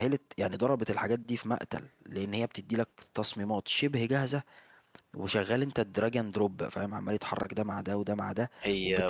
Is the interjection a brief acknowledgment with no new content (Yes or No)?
Yes